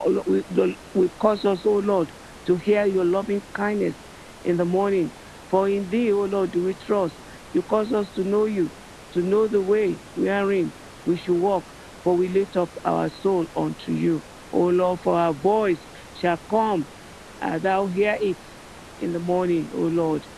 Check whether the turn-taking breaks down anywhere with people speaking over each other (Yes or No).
No